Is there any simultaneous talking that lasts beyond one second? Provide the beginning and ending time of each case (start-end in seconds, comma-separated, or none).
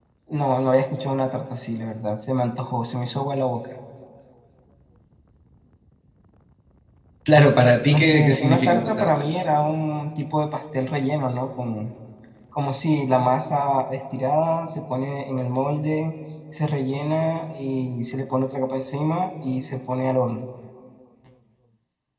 7.9-9.1